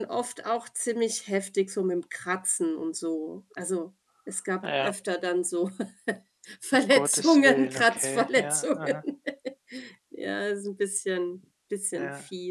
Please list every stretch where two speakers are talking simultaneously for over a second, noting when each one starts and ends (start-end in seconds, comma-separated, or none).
6.9-9.0